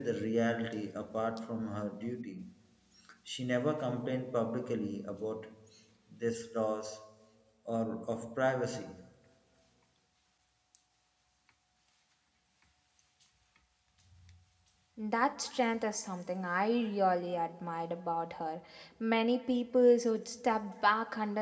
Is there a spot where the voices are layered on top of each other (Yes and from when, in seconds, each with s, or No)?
No